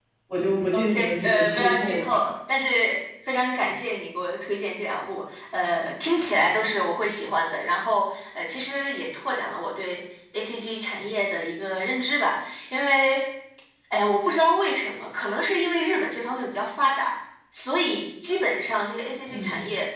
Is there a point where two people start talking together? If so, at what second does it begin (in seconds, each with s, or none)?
0.7 s